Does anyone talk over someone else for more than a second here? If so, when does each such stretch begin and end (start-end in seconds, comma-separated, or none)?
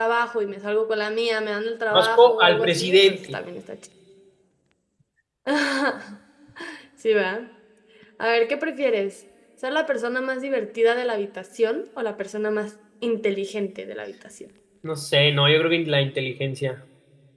1.9-3.4